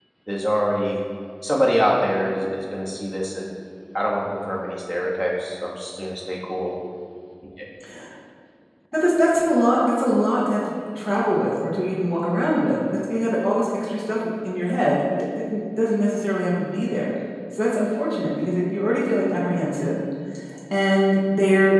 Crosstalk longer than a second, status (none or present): none